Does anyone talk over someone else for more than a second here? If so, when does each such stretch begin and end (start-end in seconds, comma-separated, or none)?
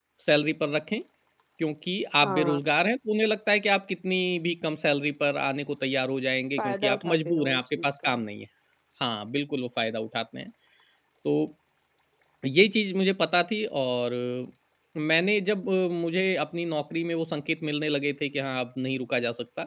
6.6-8.2